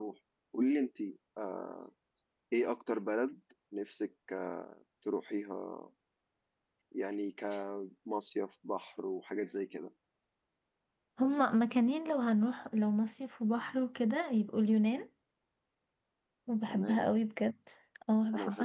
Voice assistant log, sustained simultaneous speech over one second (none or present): none